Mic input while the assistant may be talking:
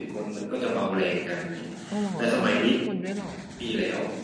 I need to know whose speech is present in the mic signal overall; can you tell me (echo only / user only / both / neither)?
both